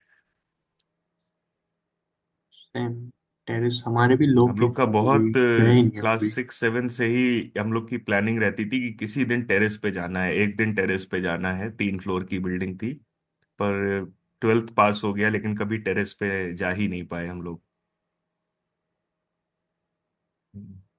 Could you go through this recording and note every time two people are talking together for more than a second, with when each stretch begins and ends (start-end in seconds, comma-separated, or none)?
4.2-6.3